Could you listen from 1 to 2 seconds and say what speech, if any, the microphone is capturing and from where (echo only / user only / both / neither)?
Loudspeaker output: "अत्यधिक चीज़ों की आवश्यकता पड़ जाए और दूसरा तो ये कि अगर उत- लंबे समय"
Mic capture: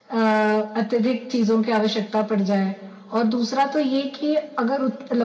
echo only